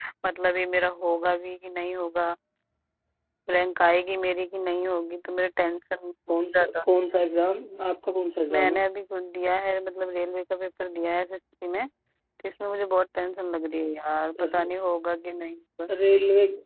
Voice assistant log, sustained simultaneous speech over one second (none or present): none